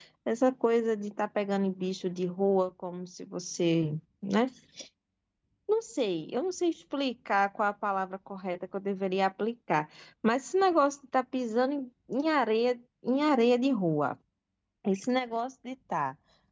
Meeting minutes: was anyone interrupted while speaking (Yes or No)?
No